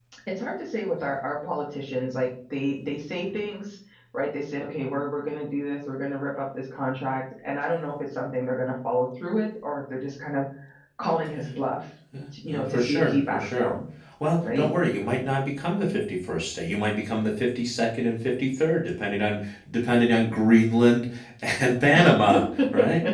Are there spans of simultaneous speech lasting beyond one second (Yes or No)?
Yes